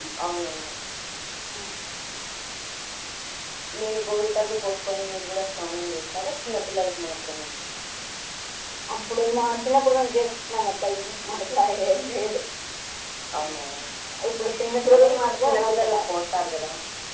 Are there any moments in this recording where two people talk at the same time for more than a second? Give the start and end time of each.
14.9-16.1

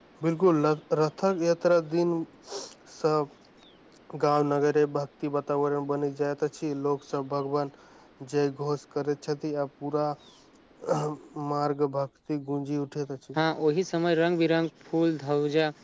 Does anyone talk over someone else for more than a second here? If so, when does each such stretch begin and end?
none

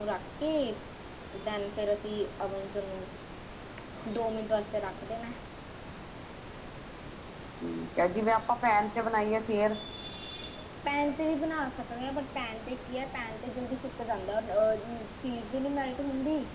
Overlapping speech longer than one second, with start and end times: none

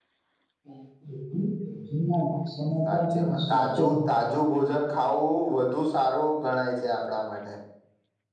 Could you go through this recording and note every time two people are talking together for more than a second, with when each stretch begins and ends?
2.9-4.6

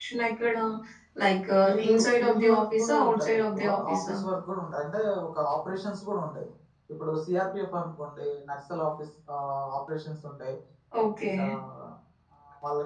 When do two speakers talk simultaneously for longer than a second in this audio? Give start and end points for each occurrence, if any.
1.9-4.0

